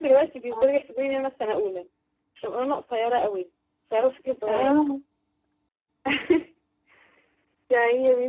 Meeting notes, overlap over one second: none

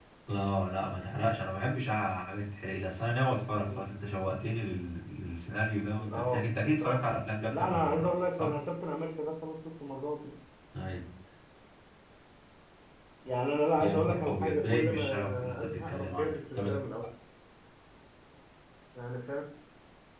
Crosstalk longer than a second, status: present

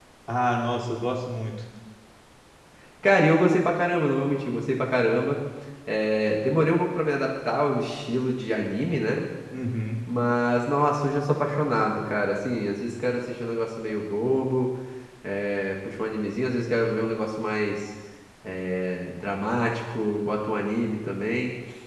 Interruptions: none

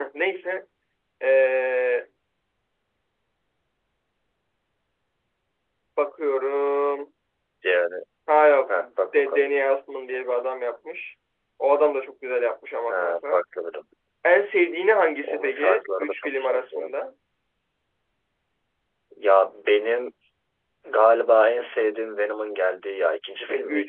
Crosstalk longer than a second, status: present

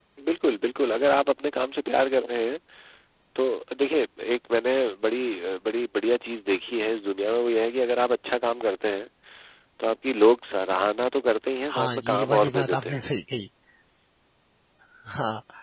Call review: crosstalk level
present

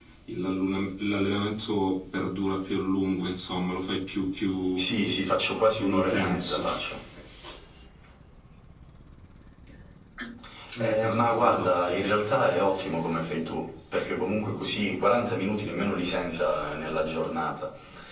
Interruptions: present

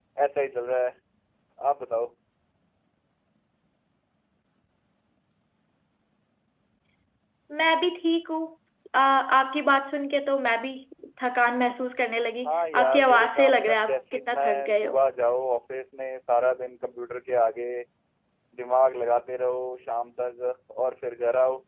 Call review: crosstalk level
present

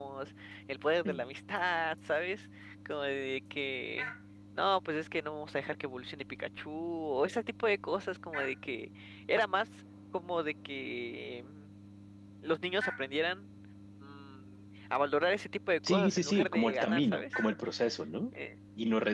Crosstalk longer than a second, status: present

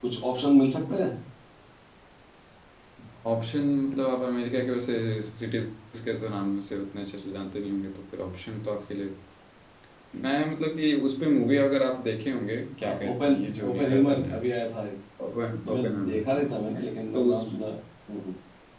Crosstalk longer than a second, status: present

